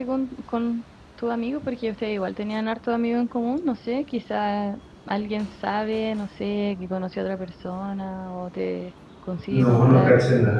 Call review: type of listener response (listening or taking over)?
taking over